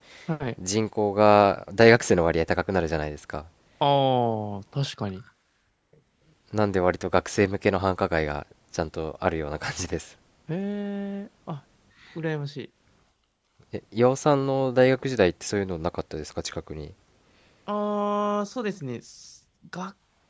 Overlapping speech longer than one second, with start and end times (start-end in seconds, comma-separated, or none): none